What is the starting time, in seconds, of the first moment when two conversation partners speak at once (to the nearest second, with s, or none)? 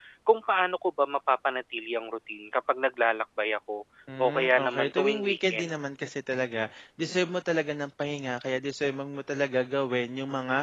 4 s